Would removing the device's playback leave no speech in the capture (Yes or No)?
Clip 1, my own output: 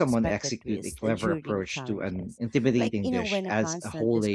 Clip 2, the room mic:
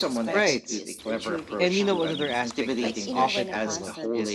No